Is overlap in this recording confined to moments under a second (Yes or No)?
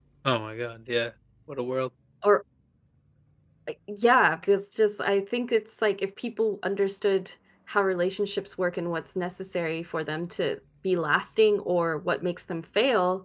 Yes